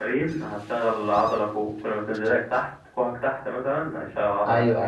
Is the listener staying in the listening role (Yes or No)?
No